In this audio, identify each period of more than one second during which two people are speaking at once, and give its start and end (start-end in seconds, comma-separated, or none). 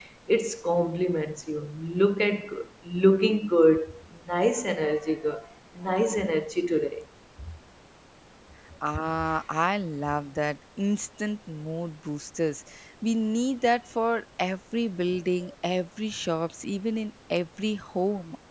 none